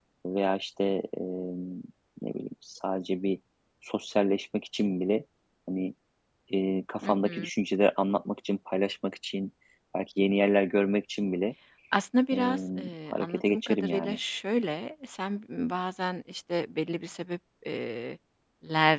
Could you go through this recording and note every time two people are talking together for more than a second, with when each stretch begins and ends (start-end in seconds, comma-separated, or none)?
12.3-14.2